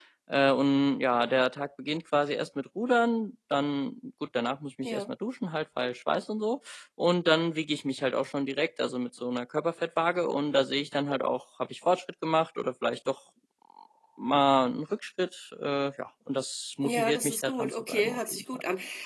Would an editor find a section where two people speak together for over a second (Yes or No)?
Yes